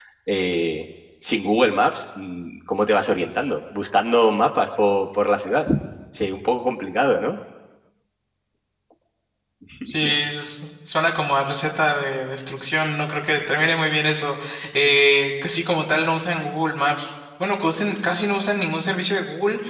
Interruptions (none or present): none